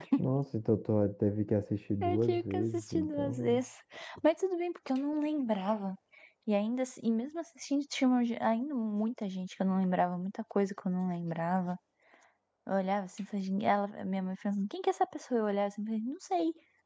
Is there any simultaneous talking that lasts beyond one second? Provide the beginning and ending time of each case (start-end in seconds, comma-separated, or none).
2.0-3.6